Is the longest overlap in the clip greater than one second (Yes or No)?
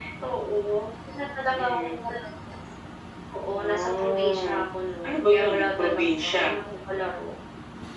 Yes